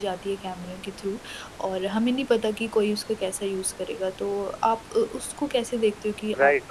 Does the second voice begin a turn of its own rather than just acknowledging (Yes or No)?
Yes